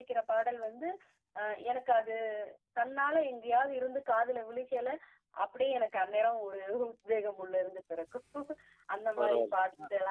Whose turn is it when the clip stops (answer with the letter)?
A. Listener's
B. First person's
B